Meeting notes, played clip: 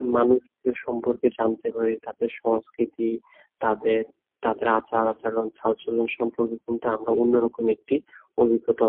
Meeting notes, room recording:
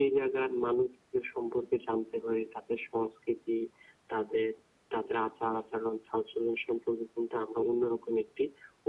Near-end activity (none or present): none